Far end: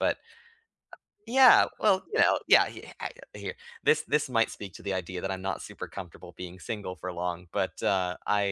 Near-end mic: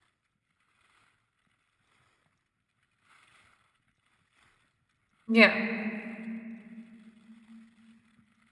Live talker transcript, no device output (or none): Yeah.